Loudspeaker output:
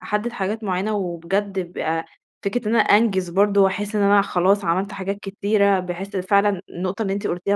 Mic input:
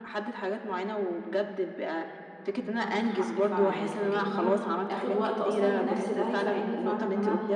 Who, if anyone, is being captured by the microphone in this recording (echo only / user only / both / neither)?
both